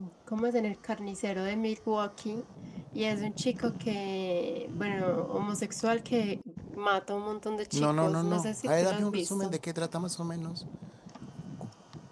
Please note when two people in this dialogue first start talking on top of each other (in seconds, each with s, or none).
7.7 s